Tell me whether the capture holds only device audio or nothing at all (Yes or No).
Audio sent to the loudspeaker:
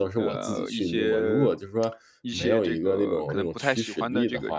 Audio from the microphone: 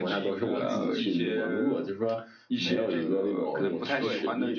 No